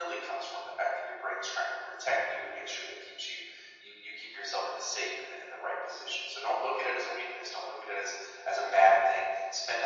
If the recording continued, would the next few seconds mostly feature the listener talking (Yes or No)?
No